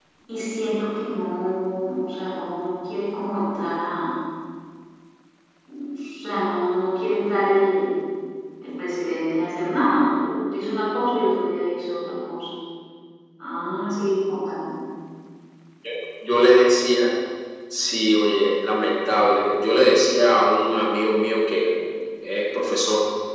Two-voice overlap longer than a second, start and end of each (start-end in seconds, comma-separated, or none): none